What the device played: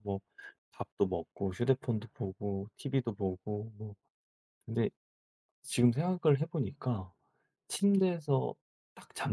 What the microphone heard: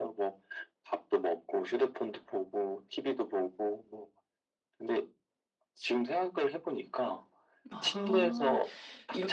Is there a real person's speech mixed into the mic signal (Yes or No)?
Yes